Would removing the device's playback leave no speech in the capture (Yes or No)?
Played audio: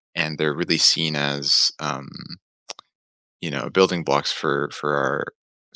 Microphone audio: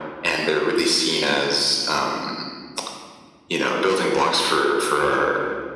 Yes